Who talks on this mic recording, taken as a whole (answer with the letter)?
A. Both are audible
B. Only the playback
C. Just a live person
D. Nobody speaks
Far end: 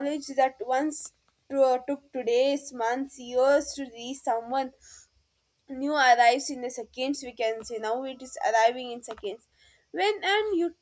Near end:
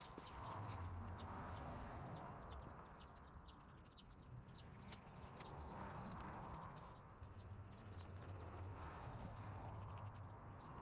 D